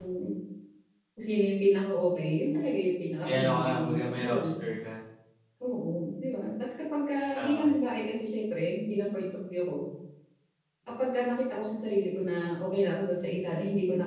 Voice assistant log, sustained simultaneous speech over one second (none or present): present